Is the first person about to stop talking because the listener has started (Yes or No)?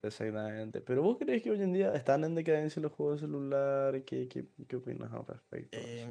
Yes